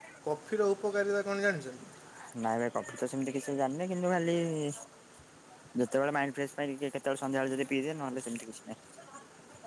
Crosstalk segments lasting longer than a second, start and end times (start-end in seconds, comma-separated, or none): none